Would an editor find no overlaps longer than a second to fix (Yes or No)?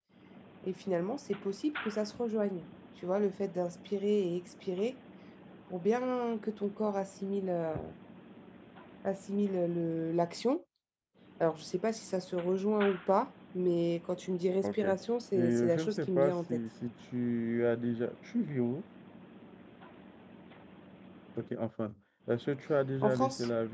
No